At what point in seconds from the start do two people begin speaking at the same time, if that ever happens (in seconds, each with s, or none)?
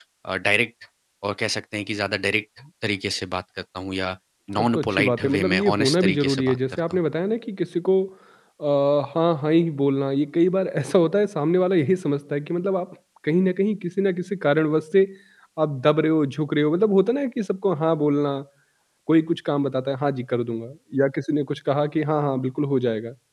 4.6 s